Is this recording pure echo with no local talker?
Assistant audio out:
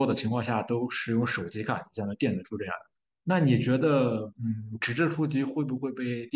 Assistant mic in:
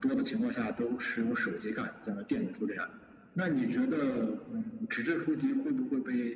Yes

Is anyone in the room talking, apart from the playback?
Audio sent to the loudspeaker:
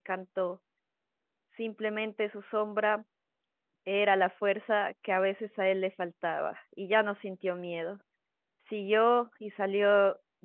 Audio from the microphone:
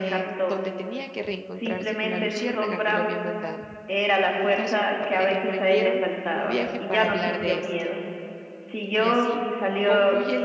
Yes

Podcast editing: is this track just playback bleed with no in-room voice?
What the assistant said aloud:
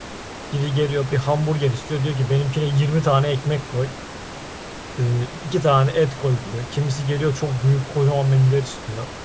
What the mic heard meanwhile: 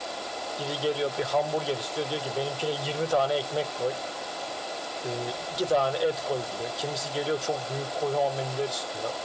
Yes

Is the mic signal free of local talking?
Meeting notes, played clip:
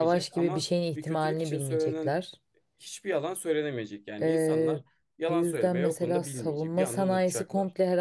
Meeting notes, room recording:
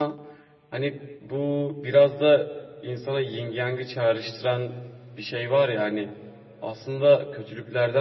No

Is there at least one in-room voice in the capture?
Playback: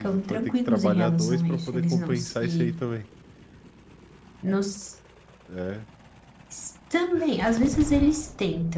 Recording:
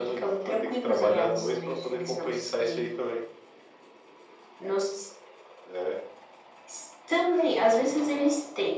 No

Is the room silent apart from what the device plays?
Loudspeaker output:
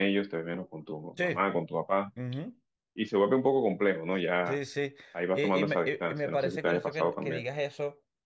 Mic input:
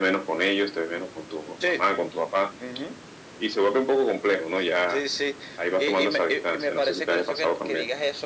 Yes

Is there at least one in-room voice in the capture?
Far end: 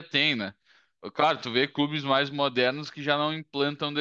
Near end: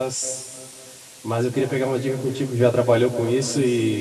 Yes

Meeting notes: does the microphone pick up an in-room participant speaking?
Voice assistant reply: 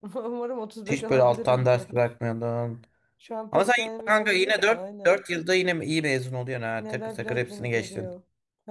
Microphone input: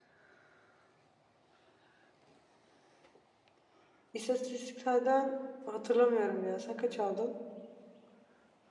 Yes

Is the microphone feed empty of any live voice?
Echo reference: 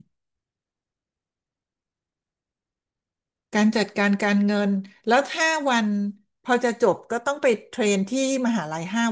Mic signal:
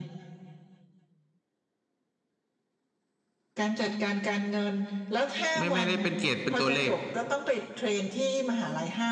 No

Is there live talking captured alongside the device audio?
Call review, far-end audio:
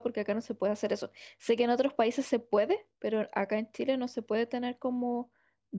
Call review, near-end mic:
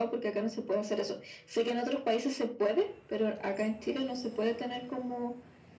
No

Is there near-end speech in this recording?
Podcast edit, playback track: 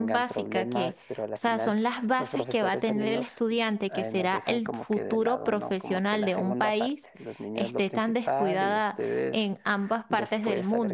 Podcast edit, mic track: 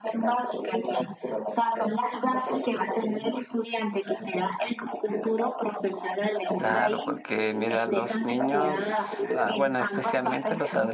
Yes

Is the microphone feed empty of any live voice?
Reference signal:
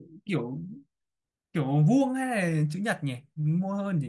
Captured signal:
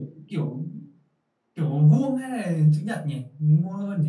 Yes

